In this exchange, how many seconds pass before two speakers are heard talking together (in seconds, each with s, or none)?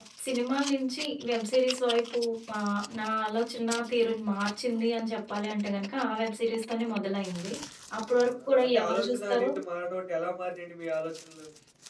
8.2 s